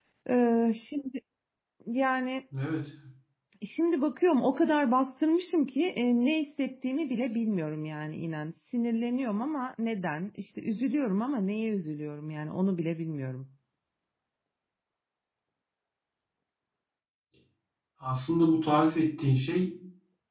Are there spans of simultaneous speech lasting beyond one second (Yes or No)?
No